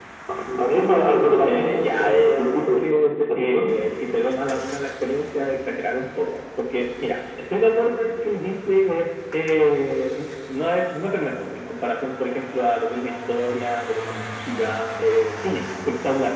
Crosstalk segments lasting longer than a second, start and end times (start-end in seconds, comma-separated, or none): 1.4-2.8